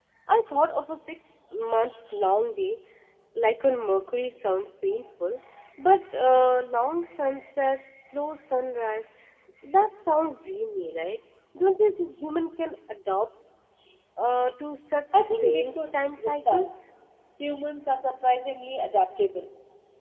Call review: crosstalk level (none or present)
present